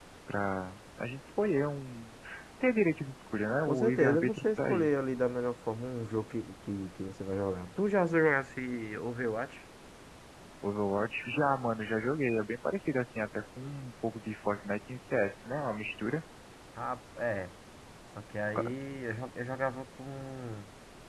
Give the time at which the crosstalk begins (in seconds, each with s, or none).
3.6 s